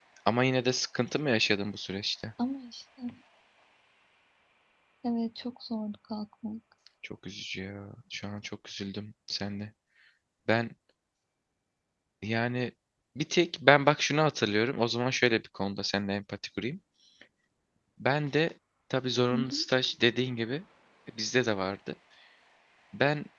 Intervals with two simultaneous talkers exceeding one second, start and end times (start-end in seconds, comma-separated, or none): none